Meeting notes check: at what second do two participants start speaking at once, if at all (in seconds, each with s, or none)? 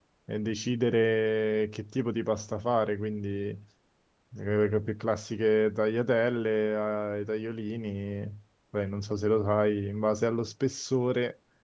none